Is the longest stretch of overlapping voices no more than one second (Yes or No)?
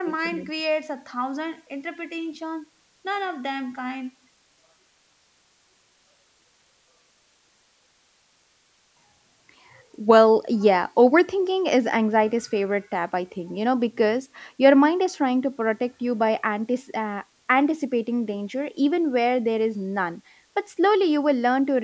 Yes